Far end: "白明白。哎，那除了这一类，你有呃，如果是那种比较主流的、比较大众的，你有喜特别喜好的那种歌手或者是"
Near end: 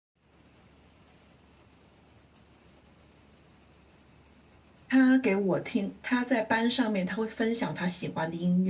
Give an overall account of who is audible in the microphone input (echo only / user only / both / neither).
user only